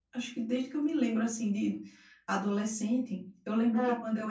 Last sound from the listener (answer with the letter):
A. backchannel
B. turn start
A